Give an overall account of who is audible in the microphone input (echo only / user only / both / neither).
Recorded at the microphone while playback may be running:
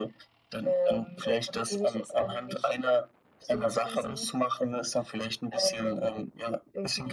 echo only